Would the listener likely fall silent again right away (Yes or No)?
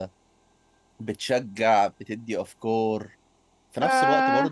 Yes